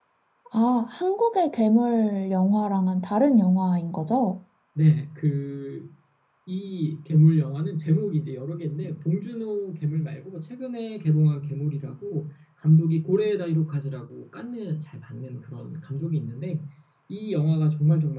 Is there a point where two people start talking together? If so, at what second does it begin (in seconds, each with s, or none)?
none